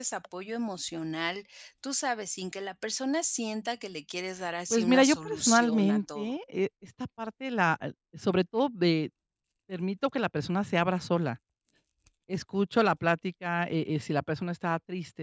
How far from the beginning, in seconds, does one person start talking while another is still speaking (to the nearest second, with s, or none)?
5 s